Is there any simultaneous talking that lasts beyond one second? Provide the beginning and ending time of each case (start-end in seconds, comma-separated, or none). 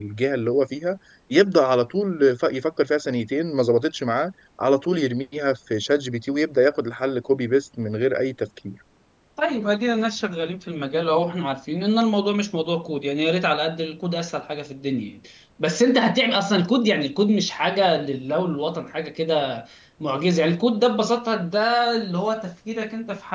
none